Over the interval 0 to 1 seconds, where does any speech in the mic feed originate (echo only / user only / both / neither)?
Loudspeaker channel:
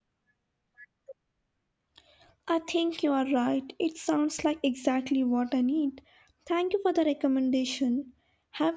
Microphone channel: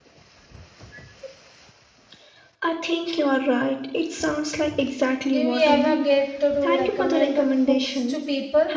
neither